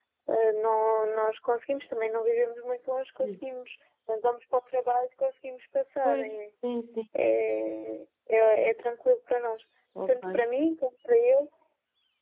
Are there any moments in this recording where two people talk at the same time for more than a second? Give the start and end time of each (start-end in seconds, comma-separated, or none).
none